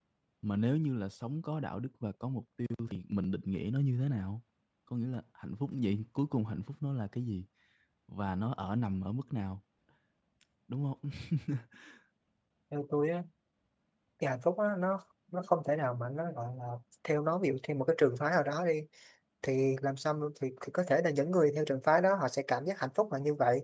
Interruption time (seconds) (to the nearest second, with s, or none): none